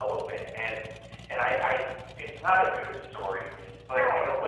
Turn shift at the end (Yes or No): No